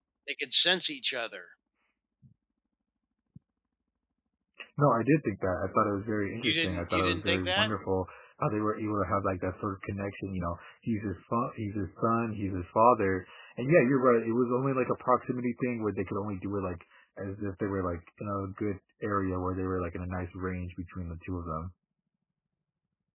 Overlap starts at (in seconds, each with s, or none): 6.4 s